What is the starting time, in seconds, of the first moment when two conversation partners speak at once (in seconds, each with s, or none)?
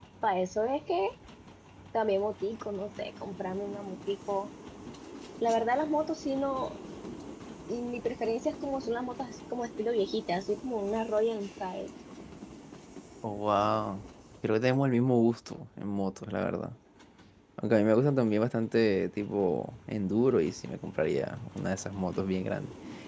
none